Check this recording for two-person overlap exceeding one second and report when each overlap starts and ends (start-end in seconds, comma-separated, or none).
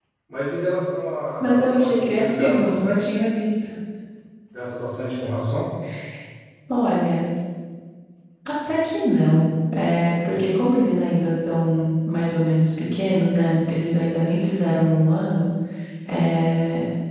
1.4-3.1